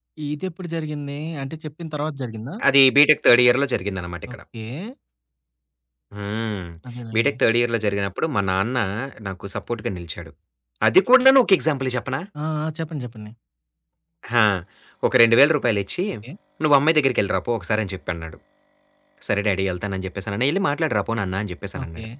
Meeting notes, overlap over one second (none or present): none